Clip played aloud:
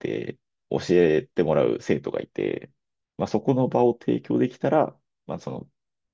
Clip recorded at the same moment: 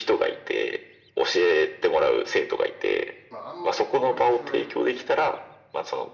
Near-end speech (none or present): present